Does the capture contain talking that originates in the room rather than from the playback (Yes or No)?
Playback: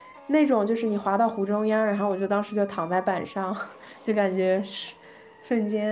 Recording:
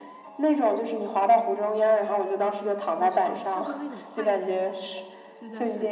Yes